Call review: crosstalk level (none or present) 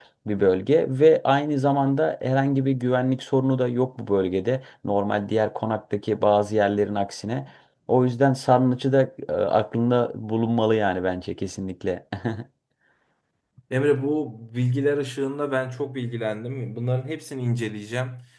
none